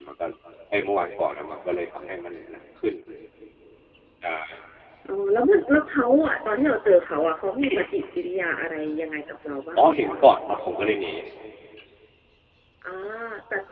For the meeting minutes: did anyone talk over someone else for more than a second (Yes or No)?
No